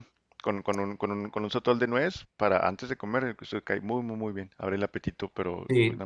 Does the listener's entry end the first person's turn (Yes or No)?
Yes